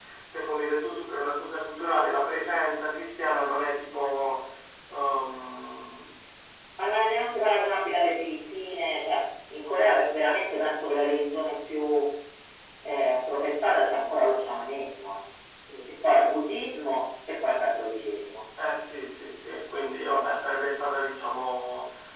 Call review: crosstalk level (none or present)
none